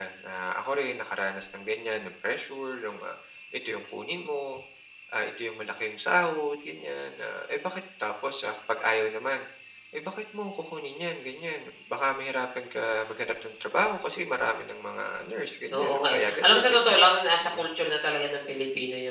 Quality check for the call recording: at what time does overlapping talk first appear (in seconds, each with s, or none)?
15.7 s